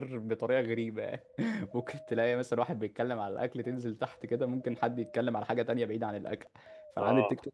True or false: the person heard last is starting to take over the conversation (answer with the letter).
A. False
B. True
A